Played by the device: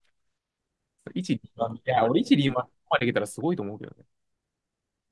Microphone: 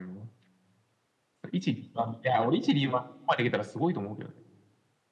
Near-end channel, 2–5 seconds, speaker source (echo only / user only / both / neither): echo only